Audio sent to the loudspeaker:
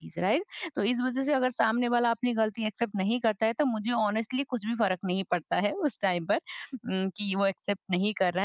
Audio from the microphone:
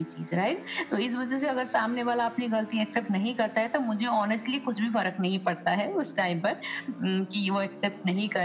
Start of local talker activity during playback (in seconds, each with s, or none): none